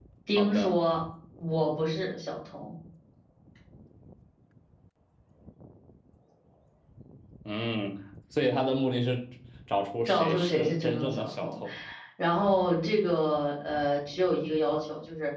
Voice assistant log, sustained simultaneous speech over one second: present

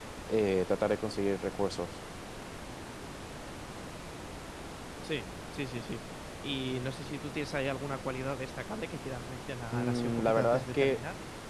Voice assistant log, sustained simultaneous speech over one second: present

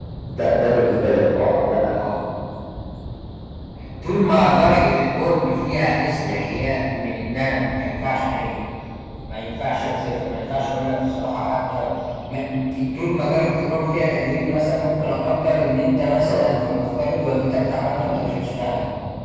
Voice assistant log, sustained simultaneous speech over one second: none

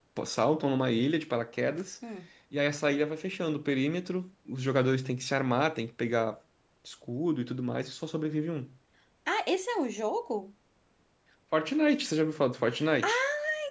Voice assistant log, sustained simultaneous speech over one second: none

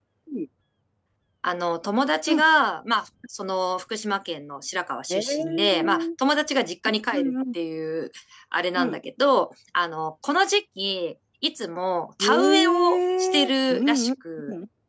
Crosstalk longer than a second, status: present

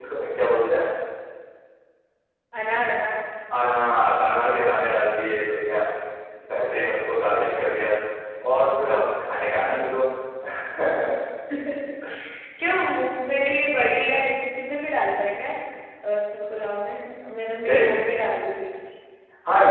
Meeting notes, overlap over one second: none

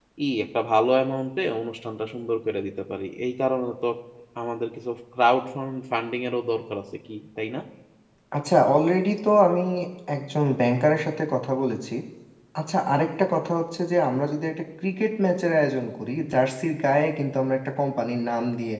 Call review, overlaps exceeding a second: none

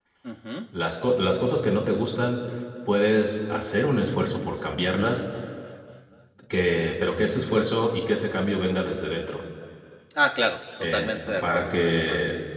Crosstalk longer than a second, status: present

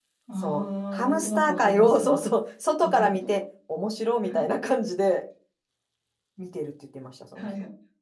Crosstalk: present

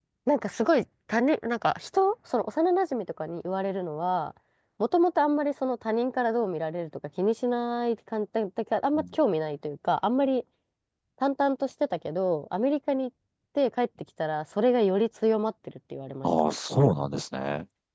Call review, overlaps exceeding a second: none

